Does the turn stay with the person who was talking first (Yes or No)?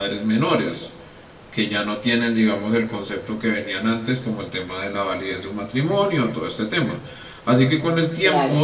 Yes